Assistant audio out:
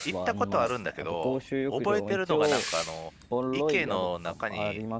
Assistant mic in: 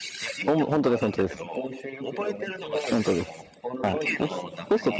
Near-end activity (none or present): present